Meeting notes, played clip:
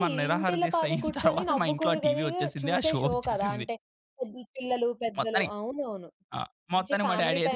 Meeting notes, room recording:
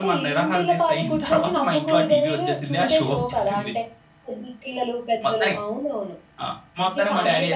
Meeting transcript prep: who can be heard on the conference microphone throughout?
echo only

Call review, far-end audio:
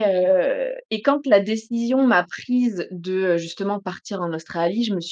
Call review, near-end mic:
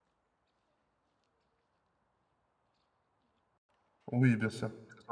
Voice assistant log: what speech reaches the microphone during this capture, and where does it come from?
user only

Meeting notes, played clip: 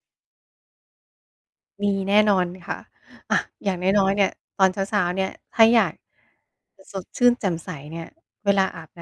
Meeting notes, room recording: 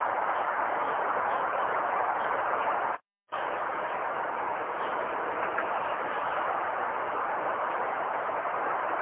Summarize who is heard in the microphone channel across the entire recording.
neither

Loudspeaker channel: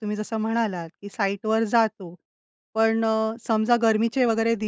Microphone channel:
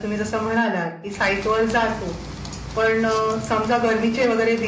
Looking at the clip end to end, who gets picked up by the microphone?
echo only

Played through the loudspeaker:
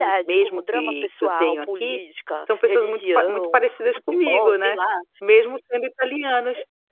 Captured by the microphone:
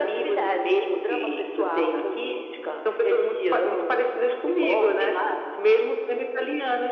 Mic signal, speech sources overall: echo only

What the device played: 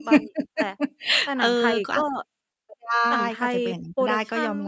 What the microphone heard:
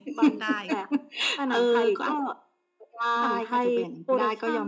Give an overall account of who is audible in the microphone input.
both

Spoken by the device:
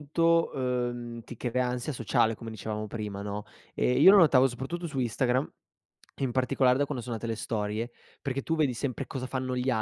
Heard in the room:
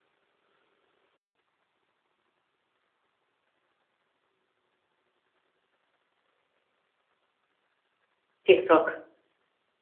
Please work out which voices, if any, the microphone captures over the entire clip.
user only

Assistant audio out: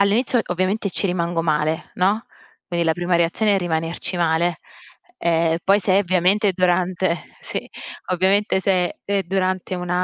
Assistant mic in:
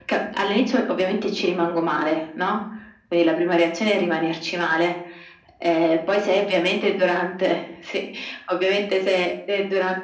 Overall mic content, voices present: echo only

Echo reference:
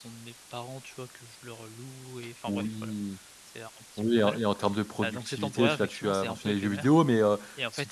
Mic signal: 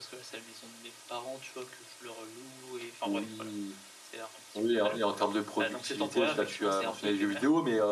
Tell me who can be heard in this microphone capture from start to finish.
echo only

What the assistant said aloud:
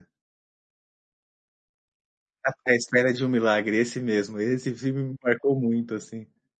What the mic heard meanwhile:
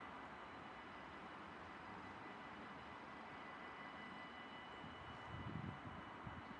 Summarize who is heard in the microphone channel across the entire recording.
neither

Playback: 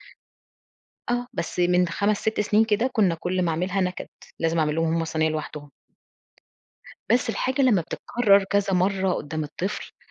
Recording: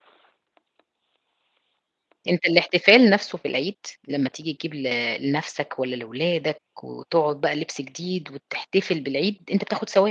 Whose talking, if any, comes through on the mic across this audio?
user only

